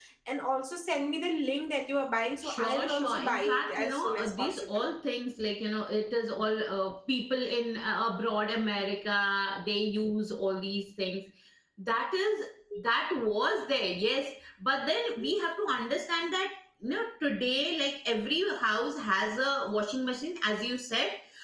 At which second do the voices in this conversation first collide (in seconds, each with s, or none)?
2.4 s